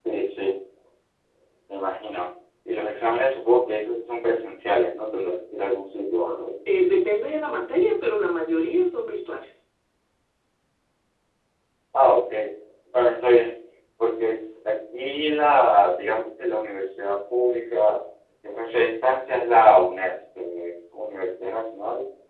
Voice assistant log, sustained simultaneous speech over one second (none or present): none